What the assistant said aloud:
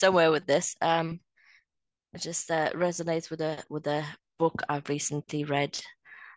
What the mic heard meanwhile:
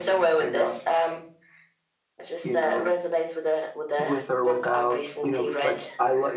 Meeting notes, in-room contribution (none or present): present